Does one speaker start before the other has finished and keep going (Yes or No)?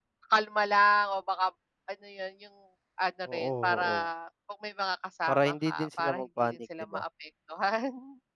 Yes